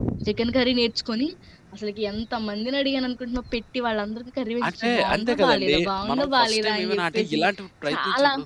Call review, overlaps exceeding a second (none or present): present